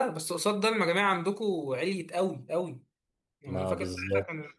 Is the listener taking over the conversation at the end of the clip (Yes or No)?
No